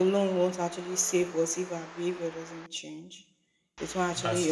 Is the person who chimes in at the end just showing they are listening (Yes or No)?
Yes